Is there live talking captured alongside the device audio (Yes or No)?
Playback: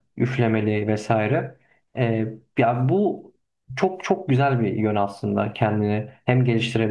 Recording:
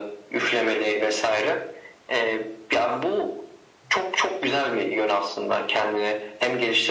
No